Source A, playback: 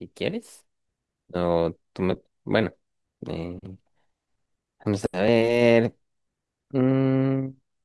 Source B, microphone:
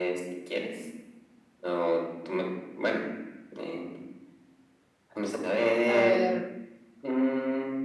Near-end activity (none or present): present